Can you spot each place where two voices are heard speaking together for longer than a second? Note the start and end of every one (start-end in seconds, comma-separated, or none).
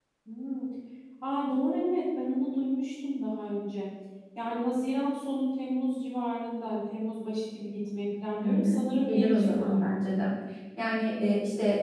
8.4-10.0